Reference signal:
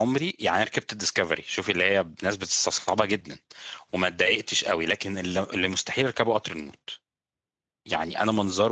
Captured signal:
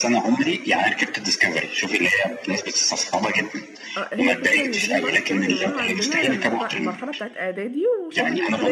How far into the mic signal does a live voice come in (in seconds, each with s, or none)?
4.0 s